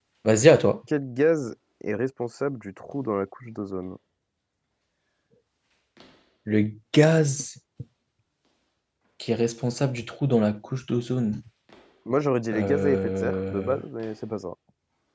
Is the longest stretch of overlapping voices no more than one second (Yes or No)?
No